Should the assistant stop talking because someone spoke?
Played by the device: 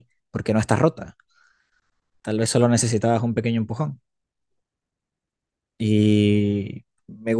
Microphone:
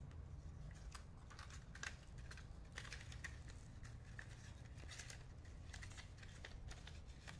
No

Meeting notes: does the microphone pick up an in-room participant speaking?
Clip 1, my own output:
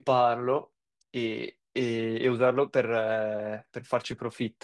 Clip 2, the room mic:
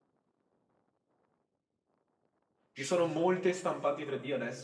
Yes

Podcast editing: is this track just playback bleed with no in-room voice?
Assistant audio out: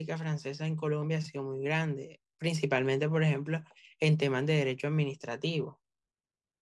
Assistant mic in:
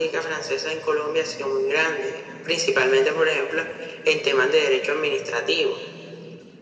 Yes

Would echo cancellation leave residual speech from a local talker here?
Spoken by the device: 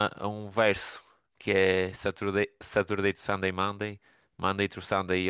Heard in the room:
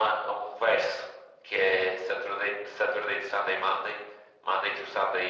No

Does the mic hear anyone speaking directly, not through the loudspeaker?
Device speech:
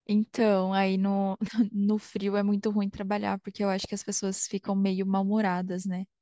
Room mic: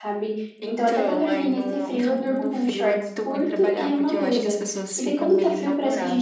Yes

